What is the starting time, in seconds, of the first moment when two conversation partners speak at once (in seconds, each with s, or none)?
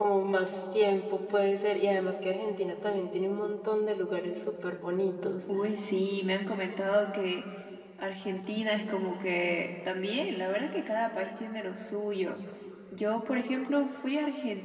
none